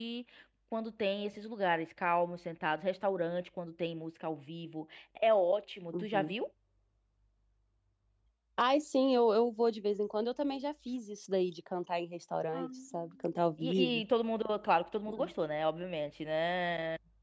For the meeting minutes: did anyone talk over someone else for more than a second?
No

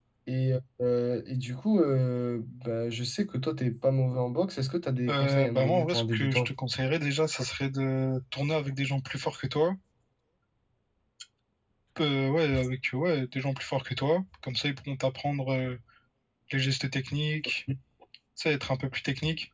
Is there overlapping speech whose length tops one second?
Yes, from 5.1 s

